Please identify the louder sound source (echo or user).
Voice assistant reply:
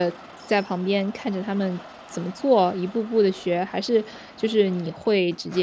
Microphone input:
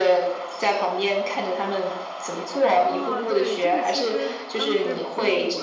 echo